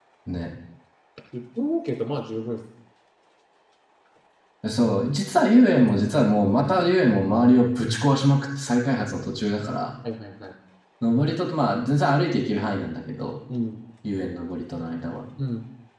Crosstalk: none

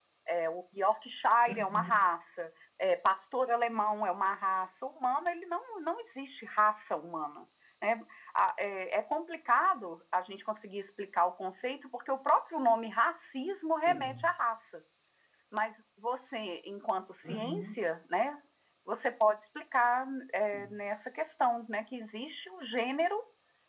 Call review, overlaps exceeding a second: none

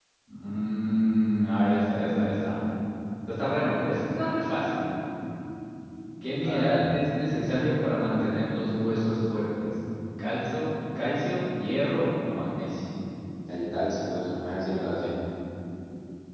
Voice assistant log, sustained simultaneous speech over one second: none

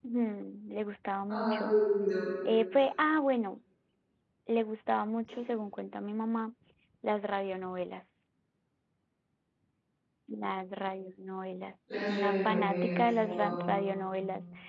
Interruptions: present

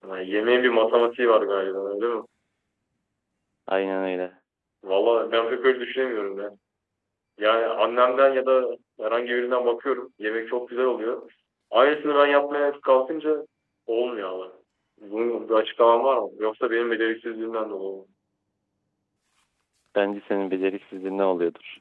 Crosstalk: none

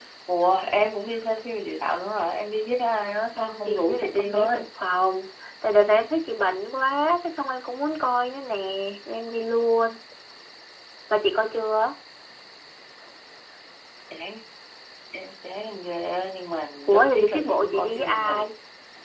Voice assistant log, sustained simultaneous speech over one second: present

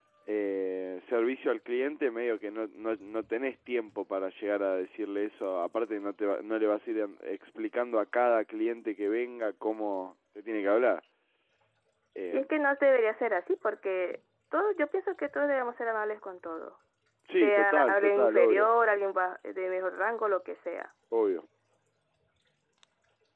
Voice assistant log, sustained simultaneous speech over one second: present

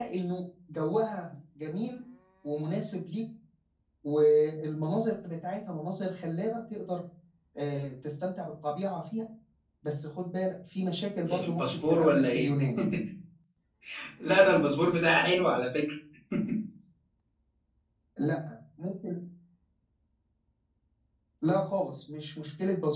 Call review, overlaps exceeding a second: present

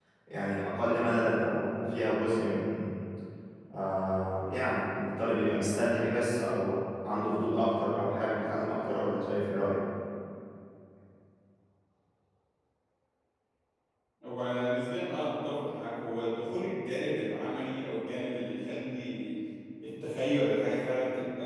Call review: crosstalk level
none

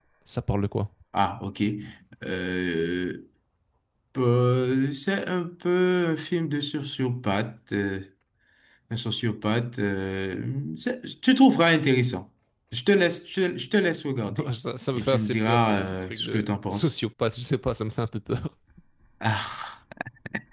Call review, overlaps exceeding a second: present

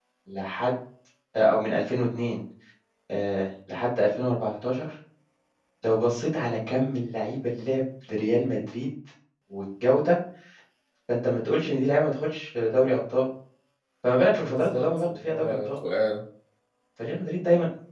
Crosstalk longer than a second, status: present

